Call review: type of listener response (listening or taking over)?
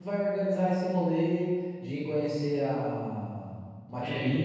taking over